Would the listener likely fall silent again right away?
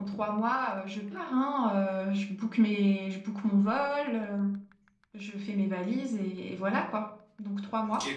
No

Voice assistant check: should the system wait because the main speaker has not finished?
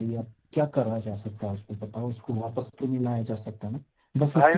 No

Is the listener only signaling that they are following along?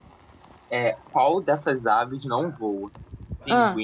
Yes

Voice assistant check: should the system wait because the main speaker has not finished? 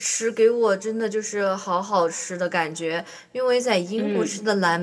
Yes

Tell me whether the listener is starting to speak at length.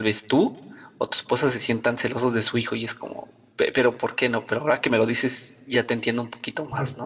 Yes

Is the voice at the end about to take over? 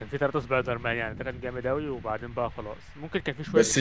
Yes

